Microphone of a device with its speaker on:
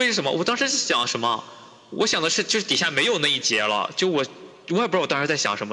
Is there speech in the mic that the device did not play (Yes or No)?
No